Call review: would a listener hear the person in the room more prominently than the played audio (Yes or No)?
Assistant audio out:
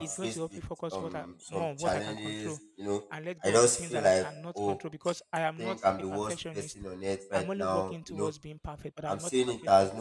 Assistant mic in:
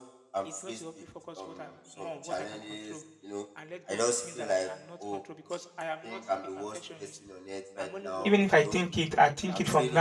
Yes